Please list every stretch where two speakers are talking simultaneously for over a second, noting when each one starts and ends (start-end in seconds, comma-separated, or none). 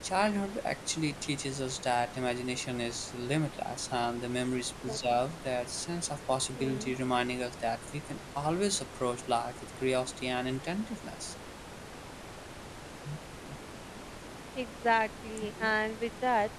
none